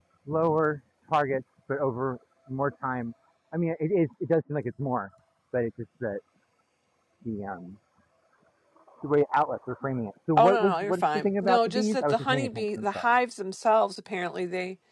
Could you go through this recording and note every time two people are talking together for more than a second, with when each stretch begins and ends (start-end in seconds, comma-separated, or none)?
10.4-13.1